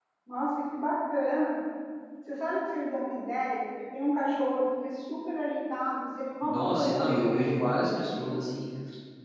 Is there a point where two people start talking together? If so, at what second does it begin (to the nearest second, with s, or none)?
6 s